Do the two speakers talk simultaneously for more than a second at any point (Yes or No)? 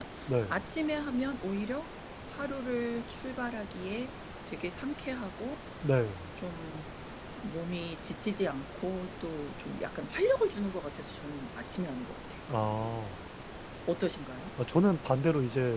No